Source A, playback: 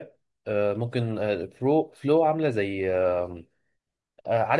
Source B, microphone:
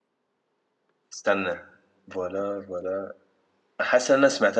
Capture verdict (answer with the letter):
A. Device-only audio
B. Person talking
B